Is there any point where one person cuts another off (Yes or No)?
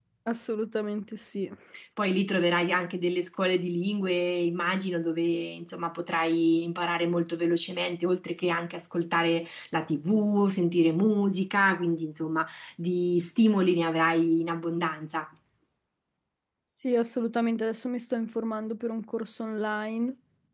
No